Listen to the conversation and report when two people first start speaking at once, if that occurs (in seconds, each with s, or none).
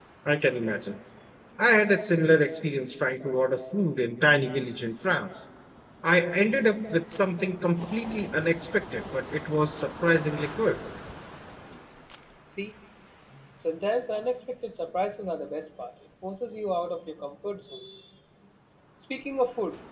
none